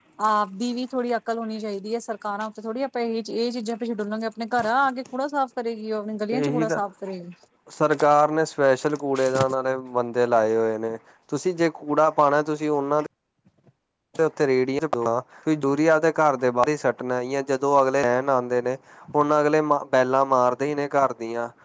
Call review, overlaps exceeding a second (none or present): none